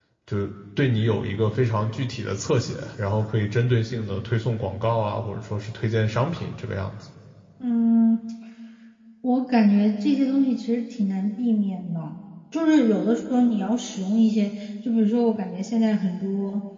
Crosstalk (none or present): none